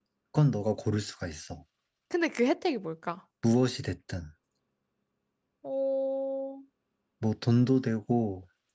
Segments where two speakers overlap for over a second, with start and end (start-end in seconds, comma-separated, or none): none